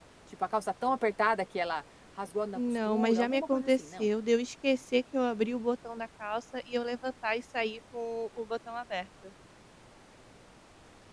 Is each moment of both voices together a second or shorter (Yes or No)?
No